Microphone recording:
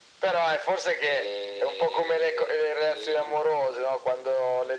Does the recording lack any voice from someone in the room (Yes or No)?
Yes